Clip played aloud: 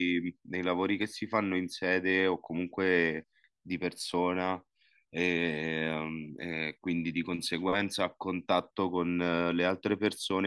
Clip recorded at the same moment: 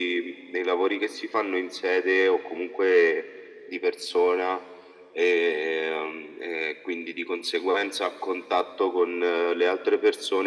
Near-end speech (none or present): none